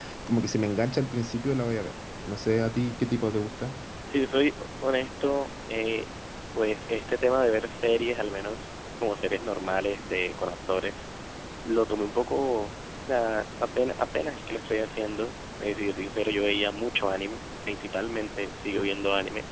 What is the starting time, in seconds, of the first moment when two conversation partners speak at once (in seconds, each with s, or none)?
none